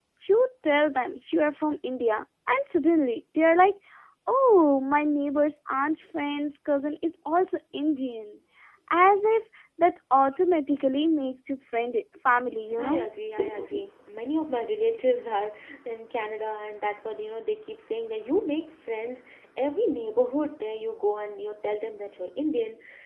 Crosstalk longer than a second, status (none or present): none